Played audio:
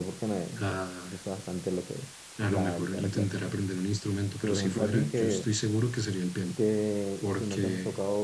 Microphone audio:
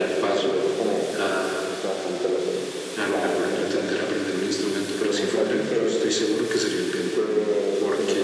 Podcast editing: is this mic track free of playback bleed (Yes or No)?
No